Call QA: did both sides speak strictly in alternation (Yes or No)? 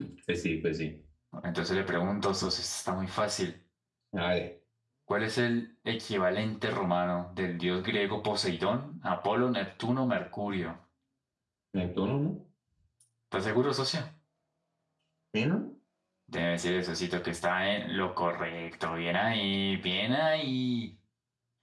Yes